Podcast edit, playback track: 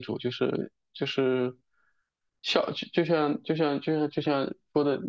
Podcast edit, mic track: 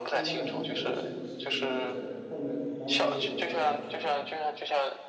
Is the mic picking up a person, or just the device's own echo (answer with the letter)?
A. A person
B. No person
A